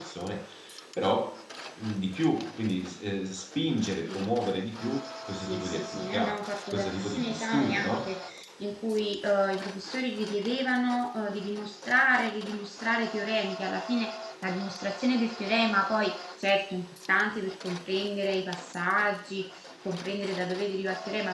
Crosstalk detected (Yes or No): Yes